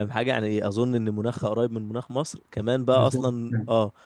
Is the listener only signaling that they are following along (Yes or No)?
Yes